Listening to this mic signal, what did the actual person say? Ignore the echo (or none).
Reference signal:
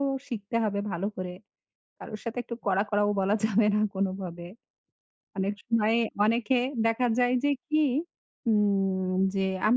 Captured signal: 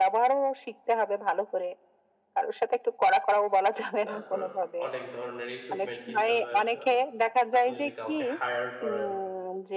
তারপর অনেক ধরনের ইকুইপমেন্ট কিনতে হবে আপনার। আপনি যদি কাউকে হায়ার করেন